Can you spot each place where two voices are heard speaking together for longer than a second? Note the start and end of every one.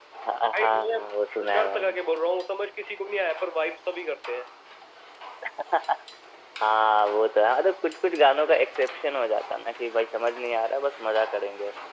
0.5-1.9

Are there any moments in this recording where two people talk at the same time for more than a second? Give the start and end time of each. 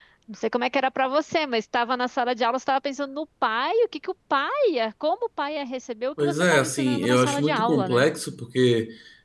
6.2-8.1

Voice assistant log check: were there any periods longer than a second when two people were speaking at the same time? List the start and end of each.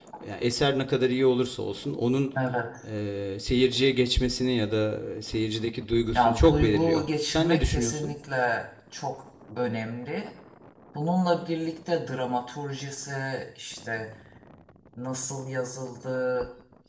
6.2-8.1

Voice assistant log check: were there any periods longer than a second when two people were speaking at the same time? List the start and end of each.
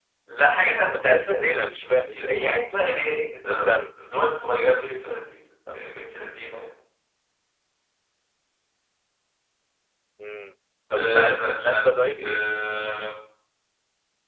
0.9-2.7, 11.0-12.4

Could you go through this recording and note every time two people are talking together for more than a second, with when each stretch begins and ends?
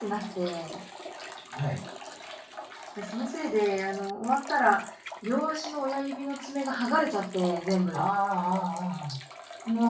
none

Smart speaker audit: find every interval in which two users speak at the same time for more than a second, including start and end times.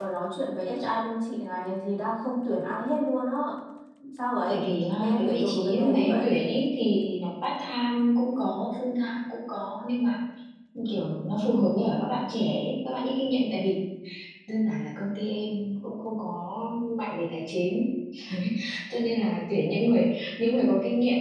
5.0-6.3

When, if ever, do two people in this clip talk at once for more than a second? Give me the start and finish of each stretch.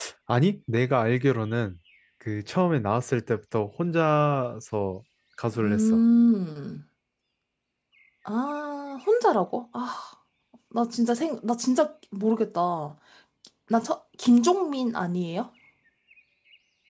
none

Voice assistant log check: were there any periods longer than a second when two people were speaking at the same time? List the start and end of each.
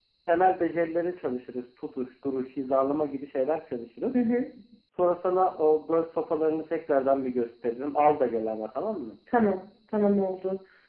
none

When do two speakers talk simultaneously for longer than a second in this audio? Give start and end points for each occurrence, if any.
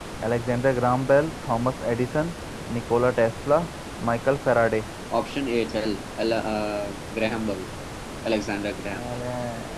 none

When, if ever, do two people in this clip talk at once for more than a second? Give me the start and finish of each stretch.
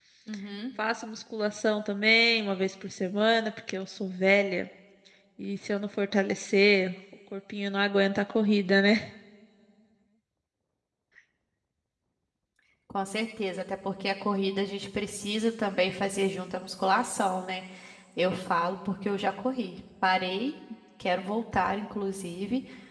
none

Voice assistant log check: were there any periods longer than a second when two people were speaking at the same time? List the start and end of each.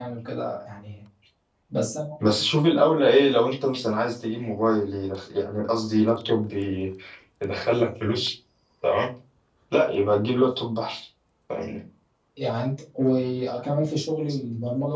none

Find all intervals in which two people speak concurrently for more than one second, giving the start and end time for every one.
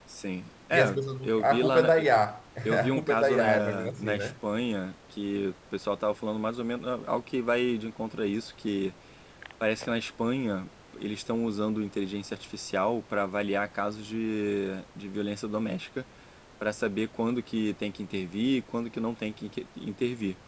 0.7-2.0, 2.9-4.3

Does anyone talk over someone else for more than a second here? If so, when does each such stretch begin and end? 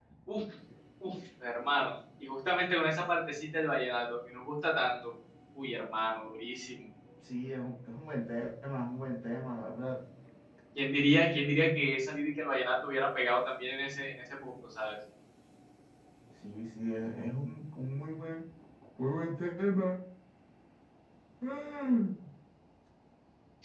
none

